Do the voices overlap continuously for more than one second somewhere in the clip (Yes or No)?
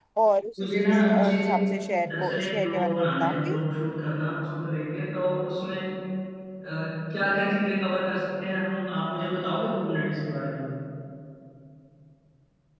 Yes